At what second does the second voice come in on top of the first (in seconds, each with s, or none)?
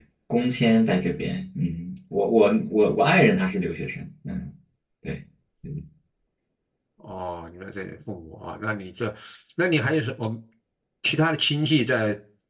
none